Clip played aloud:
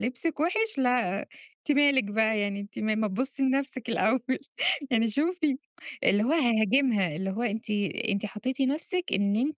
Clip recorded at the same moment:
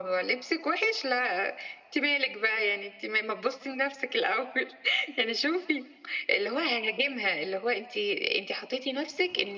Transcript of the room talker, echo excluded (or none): none